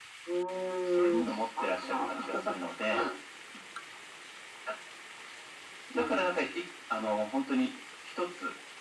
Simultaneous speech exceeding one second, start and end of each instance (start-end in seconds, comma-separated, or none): 0.8-2.2